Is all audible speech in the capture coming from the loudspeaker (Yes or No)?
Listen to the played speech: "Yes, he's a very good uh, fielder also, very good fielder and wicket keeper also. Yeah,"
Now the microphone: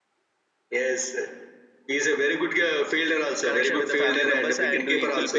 No